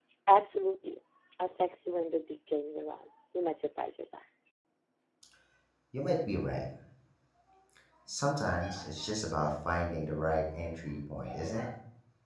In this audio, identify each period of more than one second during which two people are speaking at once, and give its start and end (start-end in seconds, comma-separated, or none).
none